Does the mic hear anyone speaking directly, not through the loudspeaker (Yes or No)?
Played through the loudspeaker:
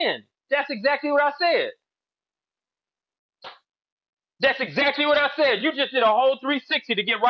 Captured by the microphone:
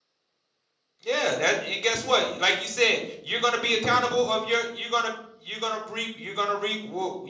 Yes